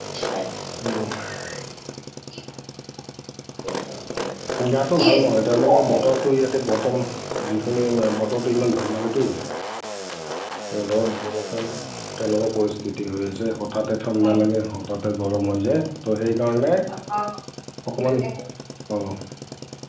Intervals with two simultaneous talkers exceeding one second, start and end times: 5.0-6.3

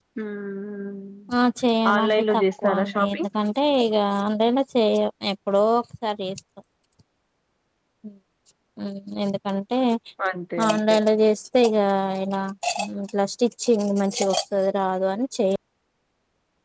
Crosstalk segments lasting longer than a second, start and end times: 1.9-3.3

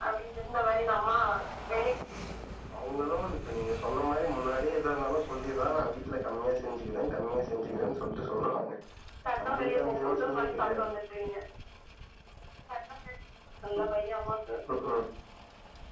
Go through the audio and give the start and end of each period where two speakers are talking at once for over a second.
9.4-10.9

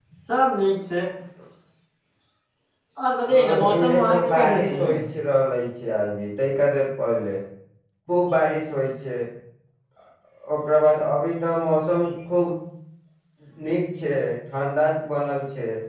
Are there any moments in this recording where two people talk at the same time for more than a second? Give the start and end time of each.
3.2-4.8

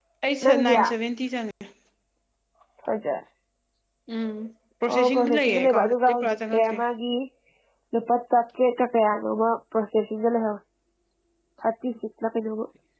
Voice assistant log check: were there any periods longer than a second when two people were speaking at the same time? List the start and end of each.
4.9-6.8

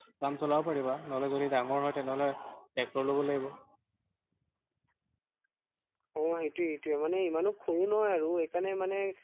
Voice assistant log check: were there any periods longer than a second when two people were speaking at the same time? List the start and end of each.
none

